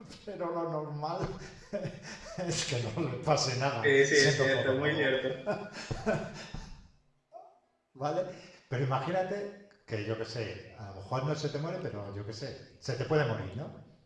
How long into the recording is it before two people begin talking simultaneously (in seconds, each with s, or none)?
3.8 s